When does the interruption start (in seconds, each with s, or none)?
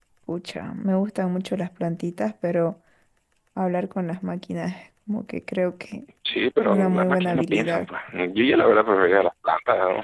6.6 s